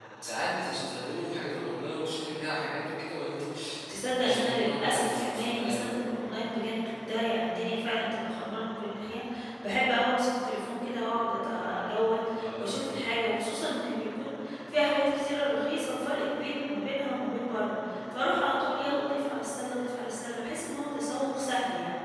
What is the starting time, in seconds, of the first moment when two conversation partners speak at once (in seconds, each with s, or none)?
4.2 s